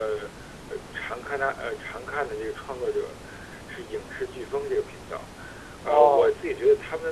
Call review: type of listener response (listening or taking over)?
listening